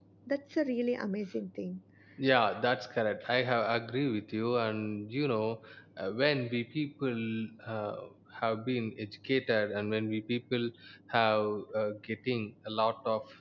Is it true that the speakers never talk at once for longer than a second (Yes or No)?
Yes